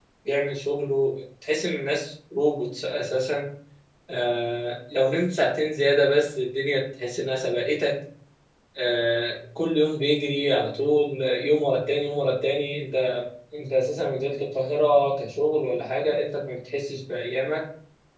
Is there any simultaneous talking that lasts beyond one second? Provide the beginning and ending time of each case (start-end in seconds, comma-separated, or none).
none